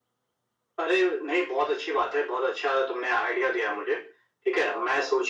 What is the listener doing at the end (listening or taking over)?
listening